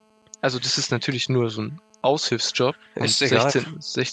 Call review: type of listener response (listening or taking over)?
listening